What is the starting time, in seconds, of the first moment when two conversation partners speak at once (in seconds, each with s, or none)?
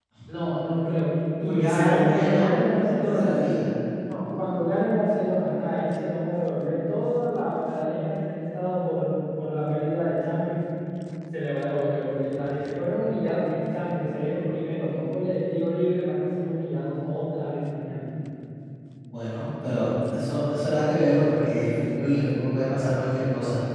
1.4 s